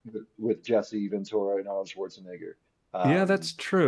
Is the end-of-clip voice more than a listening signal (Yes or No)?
Yes